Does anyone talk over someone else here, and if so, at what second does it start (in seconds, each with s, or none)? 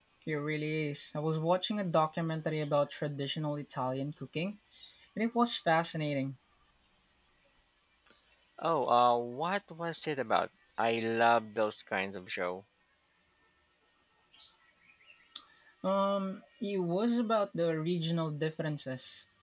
none